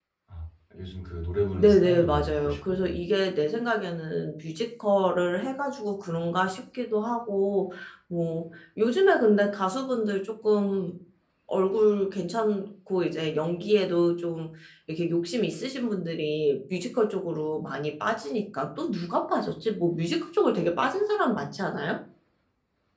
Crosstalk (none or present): present